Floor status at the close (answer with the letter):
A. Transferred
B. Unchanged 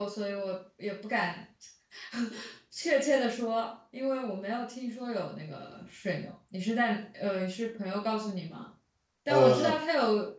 B